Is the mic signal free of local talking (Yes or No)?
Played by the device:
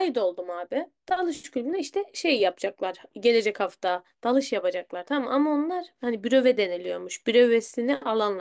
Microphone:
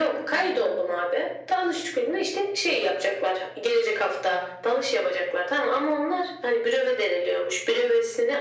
No